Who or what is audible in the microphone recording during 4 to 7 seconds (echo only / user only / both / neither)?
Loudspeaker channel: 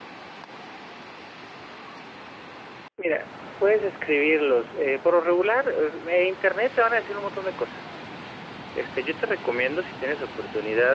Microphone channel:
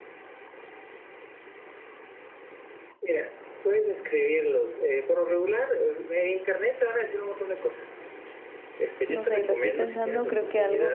echo only